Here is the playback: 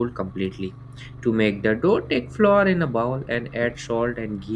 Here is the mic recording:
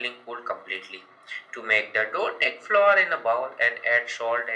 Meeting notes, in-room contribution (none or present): none